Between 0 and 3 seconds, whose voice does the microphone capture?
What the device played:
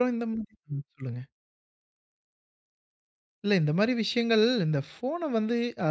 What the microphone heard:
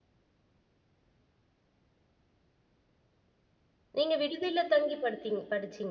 neither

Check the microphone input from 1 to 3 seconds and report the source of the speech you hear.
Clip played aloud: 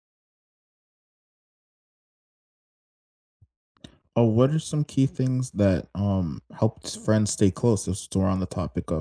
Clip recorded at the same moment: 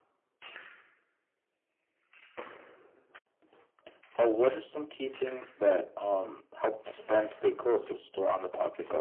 neither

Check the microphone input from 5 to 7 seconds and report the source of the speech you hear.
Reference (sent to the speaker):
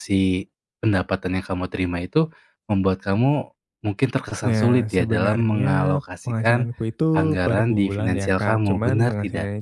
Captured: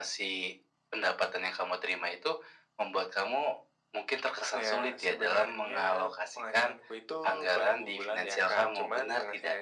echo only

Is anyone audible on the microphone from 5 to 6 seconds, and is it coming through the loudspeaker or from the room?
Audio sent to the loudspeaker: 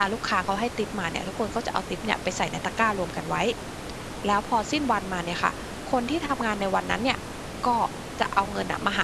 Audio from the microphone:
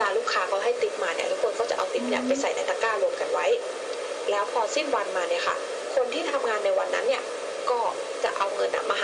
echo only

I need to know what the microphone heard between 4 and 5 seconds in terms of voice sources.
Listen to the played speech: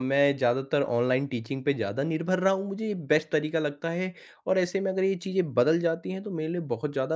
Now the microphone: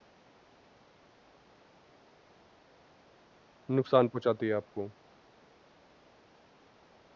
user only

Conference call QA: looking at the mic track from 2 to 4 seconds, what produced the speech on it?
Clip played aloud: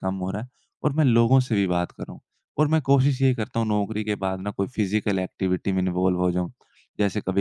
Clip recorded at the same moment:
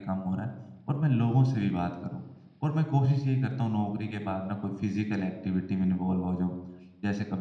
echo only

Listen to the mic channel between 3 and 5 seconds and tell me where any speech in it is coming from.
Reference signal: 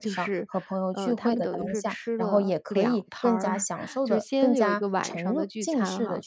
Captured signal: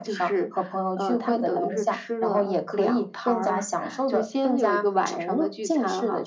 echo only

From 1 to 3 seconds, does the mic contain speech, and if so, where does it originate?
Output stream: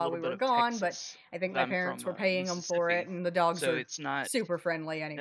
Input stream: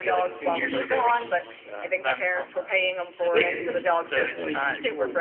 both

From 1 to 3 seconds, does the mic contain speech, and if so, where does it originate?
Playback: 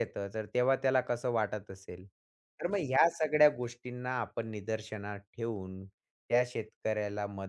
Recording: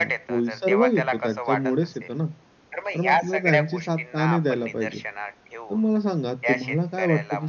both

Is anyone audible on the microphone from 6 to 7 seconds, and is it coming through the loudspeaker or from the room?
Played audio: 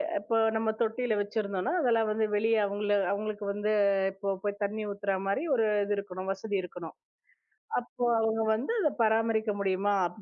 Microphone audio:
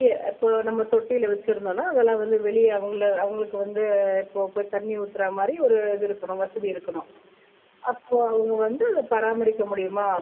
echo only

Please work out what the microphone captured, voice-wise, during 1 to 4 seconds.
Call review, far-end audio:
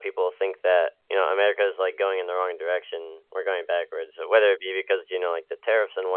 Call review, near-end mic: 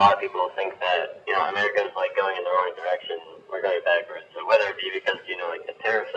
echo only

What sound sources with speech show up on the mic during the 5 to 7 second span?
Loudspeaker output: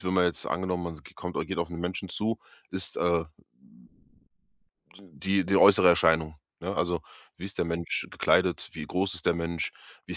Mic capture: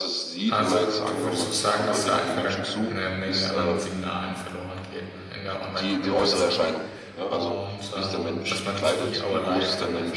both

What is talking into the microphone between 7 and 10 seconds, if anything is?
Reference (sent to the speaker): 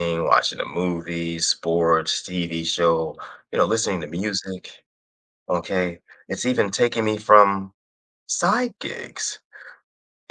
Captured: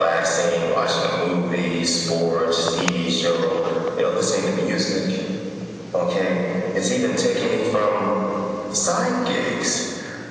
echo only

